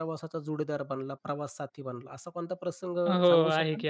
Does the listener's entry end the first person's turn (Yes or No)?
Yes